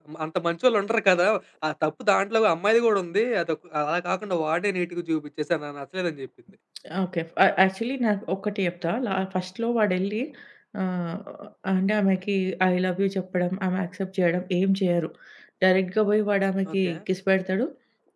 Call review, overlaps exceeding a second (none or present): none